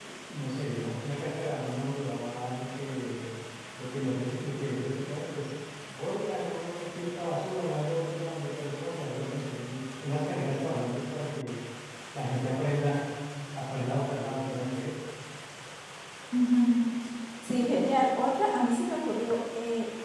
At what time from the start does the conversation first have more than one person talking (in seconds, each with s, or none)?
none